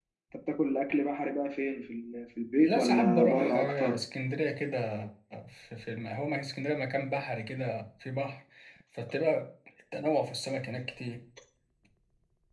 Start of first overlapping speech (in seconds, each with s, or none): 2.6 s